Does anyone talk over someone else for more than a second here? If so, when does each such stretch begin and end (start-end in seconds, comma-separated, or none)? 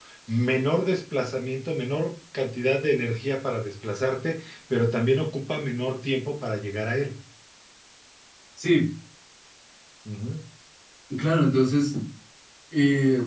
none